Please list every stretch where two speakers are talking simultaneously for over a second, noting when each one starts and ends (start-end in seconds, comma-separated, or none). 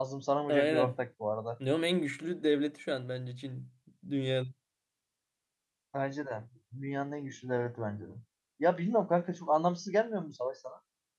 none